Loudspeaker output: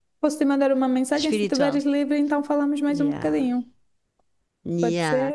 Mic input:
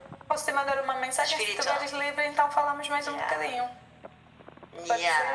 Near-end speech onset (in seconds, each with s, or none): none